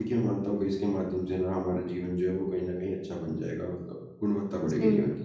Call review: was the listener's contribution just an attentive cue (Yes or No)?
No